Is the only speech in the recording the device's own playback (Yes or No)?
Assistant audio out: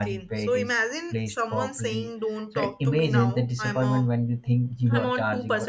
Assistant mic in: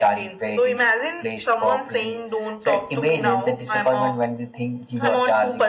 Yes